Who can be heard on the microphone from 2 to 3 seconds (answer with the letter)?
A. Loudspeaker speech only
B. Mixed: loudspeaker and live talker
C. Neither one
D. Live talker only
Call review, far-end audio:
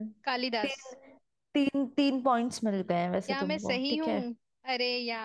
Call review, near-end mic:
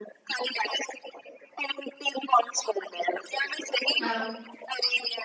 A